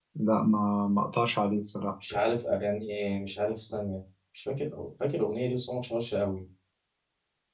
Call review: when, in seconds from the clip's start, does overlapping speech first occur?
none

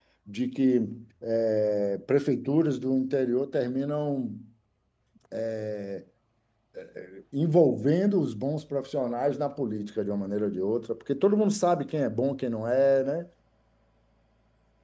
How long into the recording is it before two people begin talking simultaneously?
none

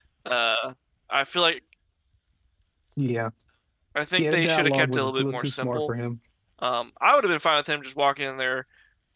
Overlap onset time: 4.2 s

